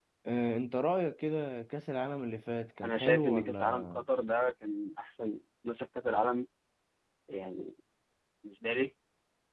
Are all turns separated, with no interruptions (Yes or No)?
No